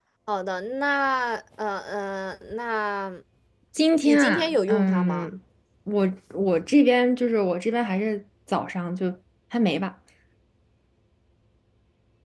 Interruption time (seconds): 4 s

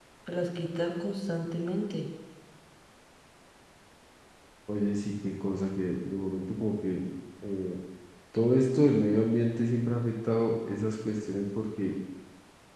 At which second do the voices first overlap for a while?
none

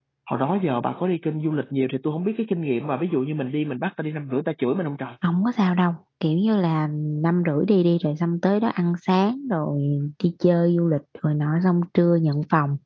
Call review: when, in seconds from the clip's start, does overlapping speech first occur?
none

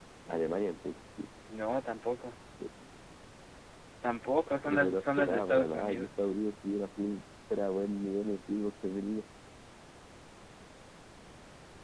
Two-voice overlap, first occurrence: 5 s

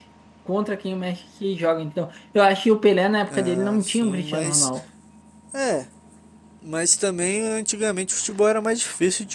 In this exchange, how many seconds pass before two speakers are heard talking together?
3 s

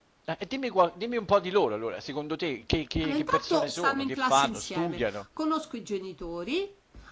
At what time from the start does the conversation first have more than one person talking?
3 s

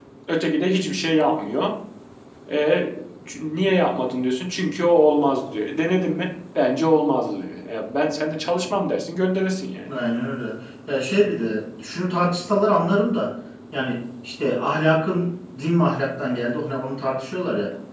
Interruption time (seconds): none

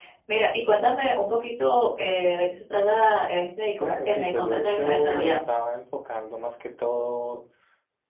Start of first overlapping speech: 4 s

